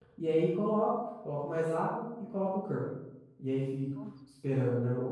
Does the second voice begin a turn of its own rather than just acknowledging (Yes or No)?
No